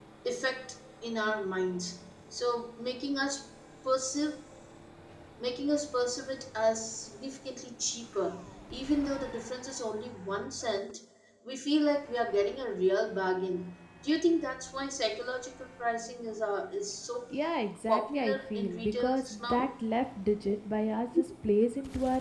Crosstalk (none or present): present